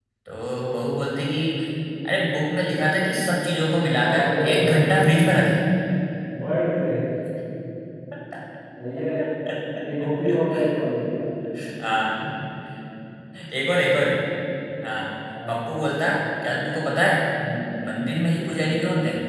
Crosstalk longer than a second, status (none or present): present